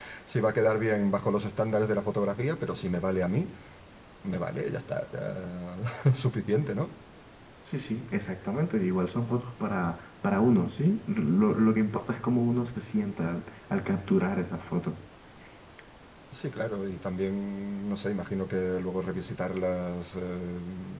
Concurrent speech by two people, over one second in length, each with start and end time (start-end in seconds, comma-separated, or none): none